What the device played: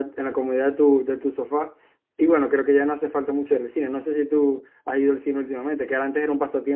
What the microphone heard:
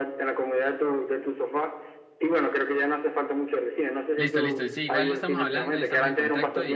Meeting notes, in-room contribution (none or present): present